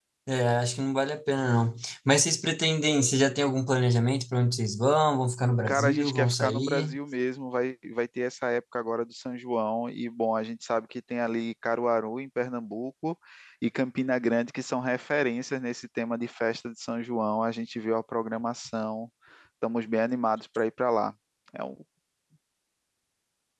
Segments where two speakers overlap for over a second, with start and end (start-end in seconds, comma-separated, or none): 5.7-7.0